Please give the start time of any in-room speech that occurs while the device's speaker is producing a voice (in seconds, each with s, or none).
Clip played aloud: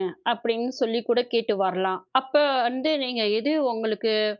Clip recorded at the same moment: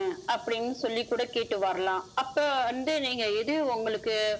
none